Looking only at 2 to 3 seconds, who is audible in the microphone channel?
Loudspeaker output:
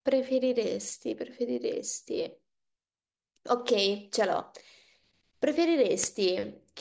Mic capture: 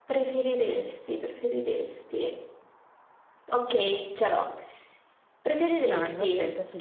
echo only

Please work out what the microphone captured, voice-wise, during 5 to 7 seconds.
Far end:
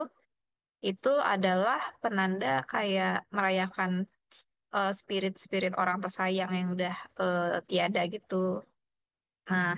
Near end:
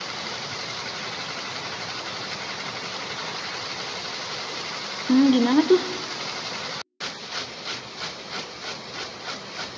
user only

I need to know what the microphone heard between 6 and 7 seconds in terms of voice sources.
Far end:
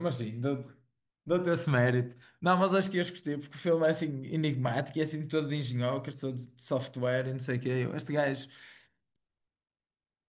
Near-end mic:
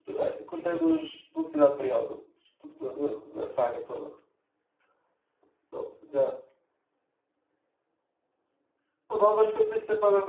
user only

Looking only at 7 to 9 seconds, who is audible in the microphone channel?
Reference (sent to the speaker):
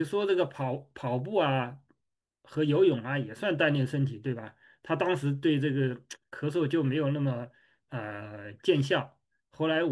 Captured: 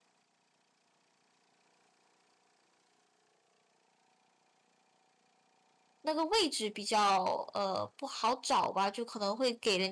user only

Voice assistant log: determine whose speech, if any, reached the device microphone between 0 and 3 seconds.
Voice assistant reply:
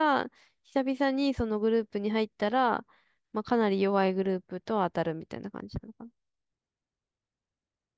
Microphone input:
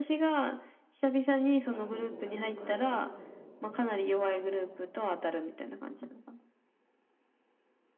both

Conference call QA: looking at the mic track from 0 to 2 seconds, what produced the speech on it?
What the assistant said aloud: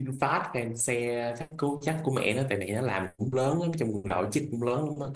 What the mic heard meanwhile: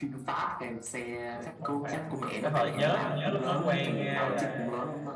both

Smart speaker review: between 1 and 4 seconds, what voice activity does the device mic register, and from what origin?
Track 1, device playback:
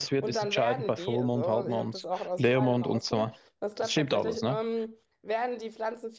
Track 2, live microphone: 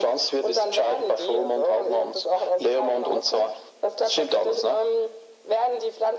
echo only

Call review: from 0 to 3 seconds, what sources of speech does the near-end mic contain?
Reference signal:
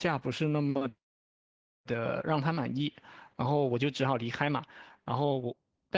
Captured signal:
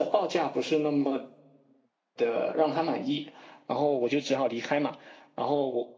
echo only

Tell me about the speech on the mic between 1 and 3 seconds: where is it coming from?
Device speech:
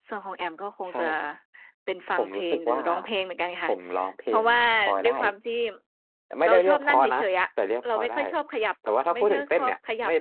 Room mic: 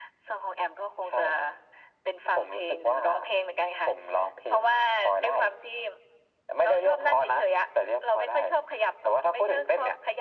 echo only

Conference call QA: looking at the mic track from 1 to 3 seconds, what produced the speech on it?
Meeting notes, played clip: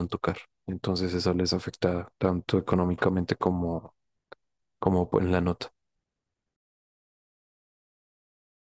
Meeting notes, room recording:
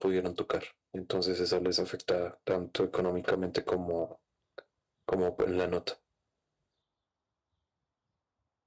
echo only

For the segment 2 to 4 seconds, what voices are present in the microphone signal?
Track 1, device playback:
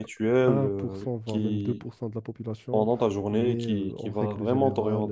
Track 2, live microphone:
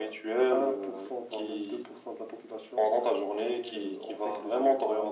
echo only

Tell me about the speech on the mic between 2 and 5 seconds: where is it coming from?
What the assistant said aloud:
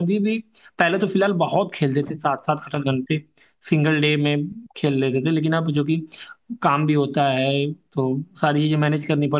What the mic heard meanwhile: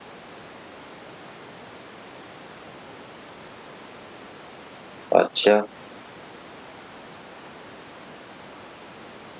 neither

